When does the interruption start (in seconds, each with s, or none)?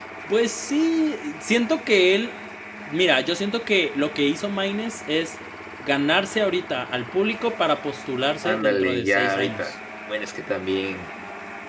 8.4 s